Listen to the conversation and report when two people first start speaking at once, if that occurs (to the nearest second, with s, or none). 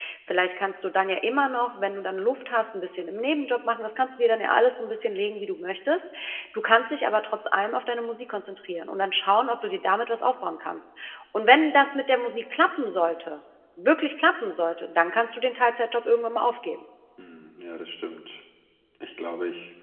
none